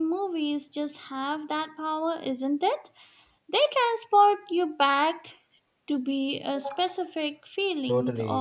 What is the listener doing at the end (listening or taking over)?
taking over